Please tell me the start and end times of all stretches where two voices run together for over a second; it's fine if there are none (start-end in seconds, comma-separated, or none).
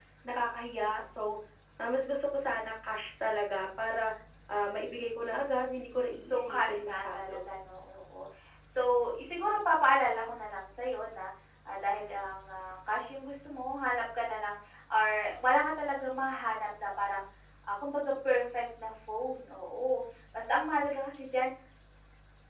6.2-7.4